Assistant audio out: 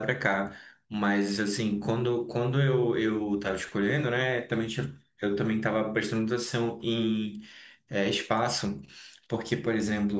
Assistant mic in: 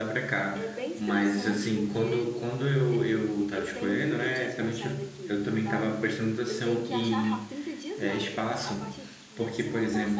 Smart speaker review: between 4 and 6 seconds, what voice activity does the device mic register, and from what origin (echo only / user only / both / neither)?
both